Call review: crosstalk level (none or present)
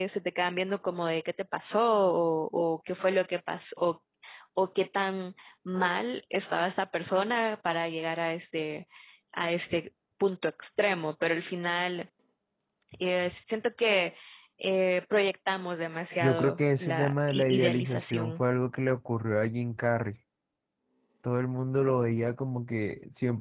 present